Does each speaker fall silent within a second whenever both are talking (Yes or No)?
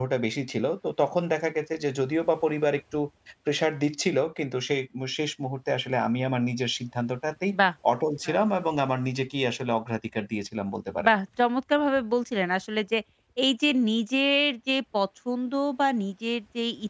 Yes